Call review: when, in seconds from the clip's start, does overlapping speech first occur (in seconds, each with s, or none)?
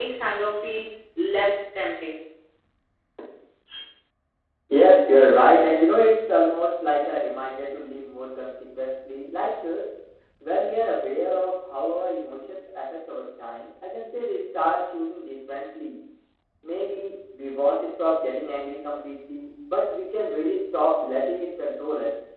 none